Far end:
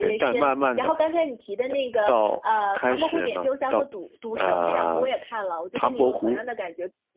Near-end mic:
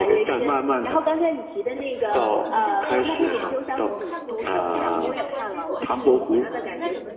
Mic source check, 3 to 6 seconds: both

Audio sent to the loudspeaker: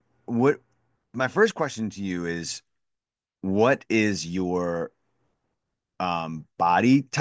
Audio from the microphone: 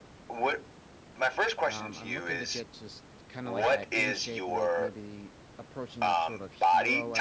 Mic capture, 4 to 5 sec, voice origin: both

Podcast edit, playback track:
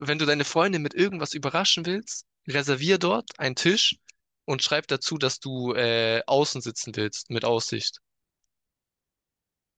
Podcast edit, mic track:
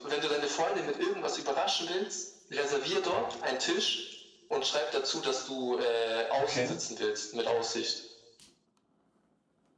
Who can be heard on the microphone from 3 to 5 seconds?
echo only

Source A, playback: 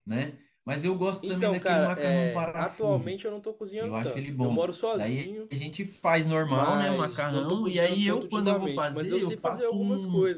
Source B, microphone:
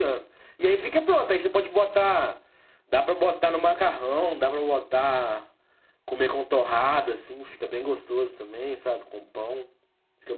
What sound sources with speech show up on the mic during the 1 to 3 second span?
user only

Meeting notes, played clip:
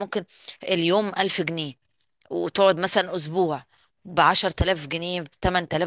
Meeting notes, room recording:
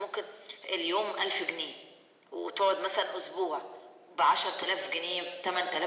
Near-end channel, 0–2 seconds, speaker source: echo only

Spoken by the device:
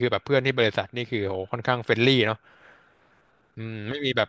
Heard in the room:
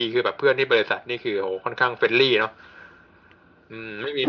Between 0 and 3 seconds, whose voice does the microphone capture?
echo only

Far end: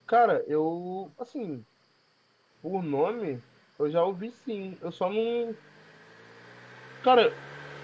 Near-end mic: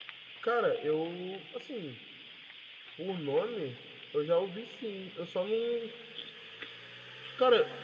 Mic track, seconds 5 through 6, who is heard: echo only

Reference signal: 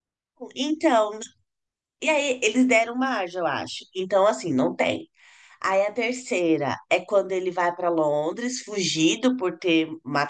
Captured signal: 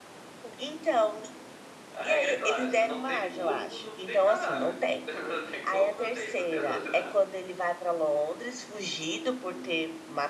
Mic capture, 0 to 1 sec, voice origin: echo only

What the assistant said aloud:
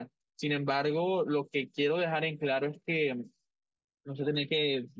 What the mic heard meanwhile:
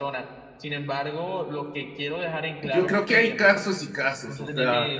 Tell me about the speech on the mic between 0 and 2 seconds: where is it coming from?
echo only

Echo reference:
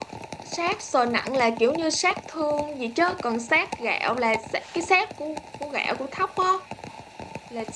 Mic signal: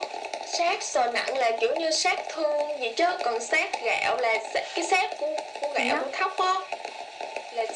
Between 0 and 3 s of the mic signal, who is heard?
echo only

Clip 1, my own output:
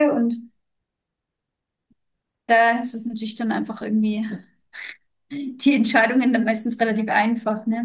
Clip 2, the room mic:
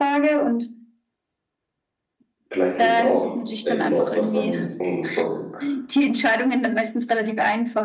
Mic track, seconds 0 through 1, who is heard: echo only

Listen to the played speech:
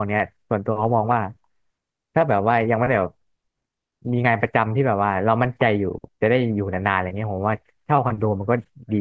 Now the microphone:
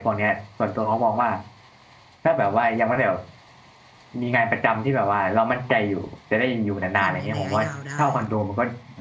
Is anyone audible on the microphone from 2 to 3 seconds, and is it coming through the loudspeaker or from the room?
echo only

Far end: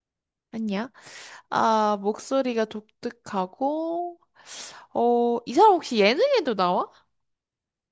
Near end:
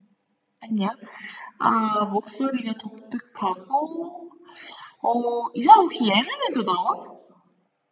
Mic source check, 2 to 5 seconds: echo only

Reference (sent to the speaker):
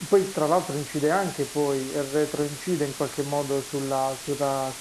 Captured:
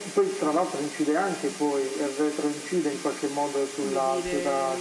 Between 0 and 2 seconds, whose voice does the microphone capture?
echo only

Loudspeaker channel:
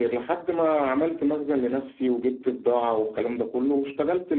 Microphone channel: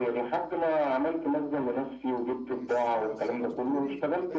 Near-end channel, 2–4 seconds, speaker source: both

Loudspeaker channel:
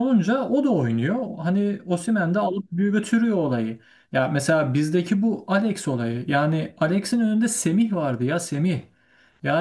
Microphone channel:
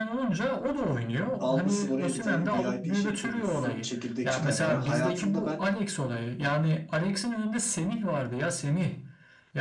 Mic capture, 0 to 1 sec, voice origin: echo only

